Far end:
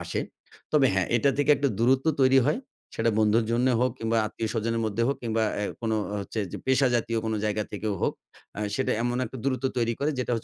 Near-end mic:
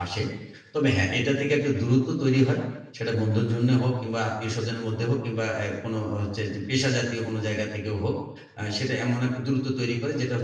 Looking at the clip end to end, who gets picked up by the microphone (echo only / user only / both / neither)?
echo only